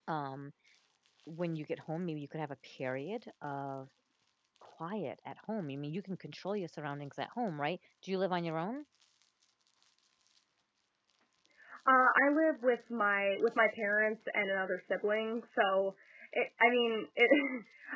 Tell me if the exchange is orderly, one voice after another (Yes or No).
Yes